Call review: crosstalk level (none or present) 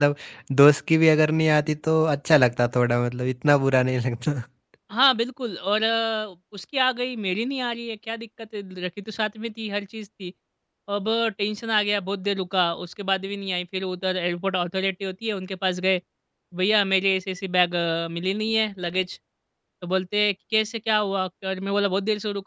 none